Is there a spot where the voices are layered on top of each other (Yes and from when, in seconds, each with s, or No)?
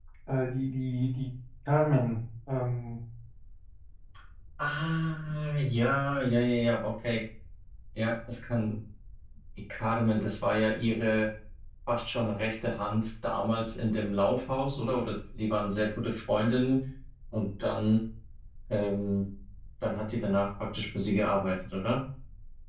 No